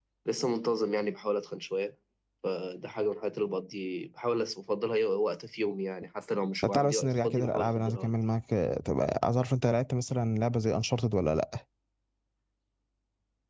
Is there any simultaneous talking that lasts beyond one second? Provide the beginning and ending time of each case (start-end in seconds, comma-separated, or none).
6.7-8.1